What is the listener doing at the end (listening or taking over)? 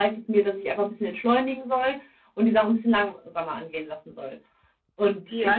taking over